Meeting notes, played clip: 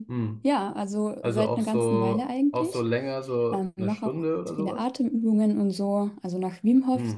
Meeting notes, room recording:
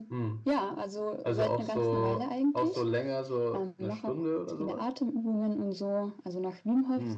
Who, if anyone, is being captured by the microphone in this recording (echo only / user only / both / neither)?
echo only